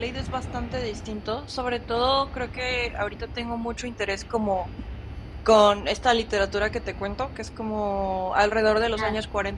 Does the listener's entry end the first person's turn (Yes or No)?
No